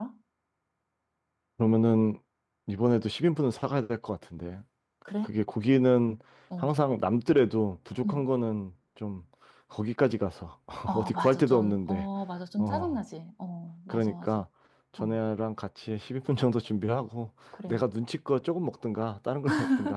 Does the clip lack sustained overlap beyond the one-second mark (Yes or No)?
No